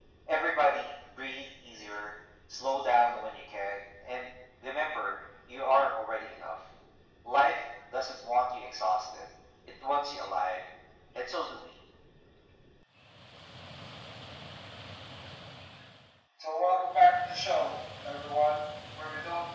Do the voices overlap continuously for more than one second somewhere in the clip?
No

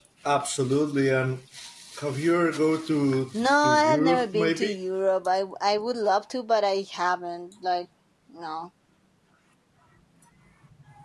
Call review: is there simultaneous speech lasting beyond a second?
Yes, from 3.3 s

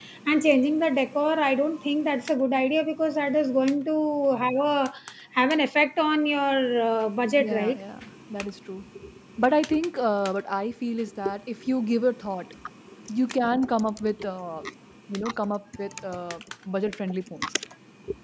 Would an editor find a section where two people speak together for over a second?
No

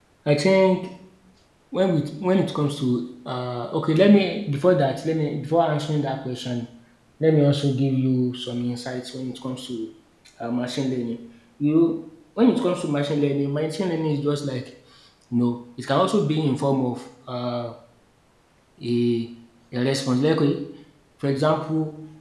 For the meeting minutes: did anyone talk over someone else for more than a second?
No

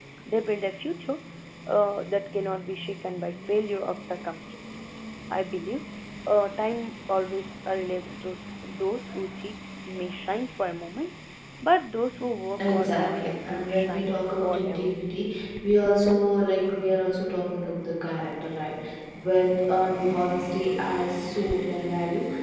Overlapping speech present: Yes, from 12.6 s

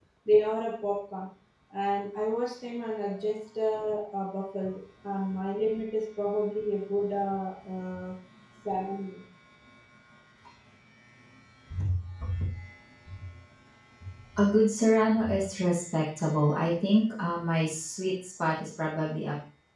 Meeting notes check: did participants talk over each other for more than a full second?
No

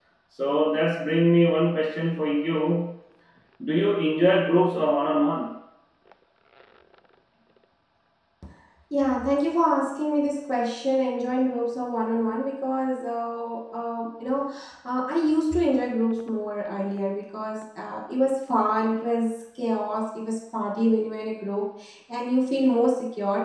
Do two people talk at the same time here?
No

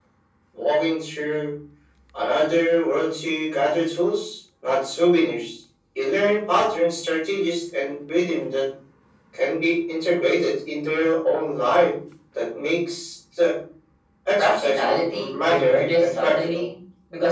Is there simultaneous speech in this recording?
Yes, from 14.4 s

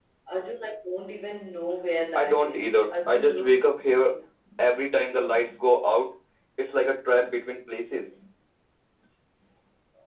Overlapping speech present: Yes, from 1.9 s

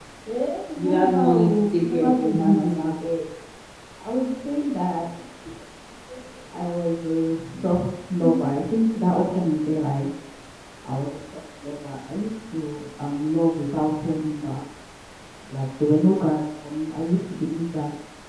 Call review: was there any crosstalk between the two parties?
Yes, from 0.8 s

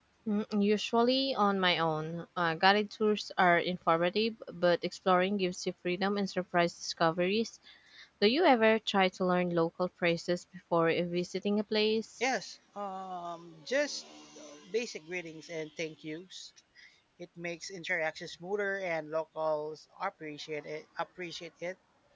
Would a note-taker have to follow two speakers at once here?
No

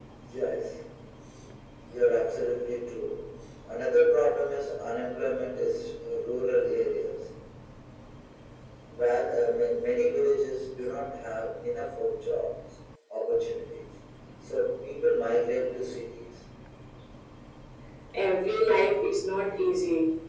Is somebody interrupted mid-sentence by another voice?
No

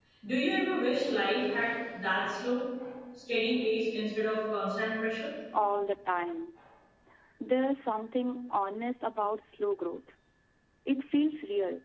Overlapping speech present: No

